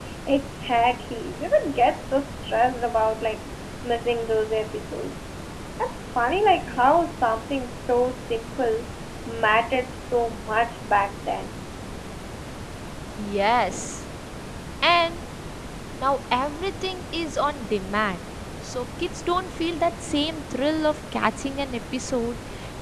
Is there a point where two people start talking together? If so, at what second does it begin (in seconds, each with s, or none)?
none